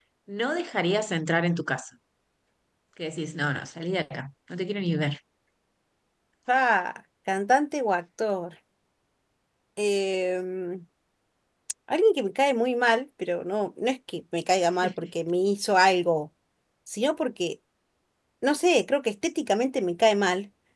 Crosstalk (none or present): none